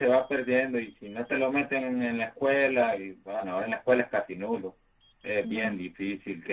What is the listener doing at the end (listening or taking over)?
listening